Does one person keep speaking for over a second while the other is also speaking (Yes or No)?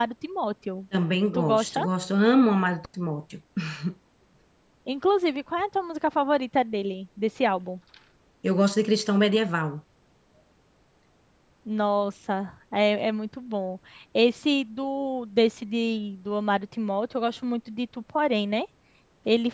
No